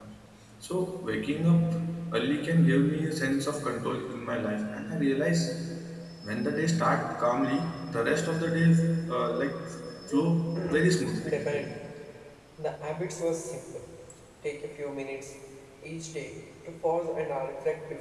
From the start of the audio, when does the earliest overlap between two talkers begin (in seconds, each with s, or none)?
10.1 s